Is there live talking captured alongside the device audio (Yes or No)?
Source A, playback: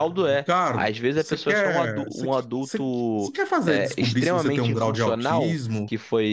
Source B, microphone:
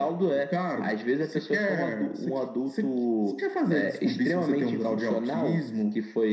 No